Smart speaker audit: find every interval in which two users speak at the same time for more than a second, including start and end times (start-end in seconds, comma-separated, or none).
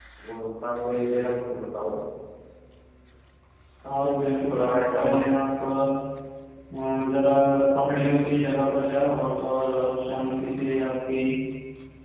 4.0-5.2